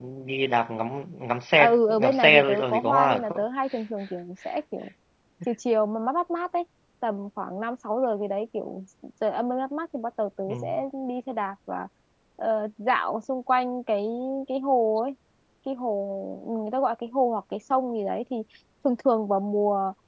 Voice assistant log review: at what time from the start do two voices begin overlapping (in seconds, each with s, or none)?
1.6 s